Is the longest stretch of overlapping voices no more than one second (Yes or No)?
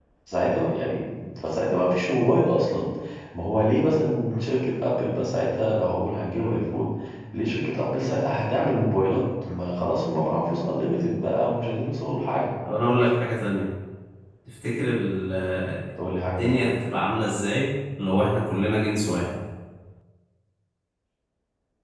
Yes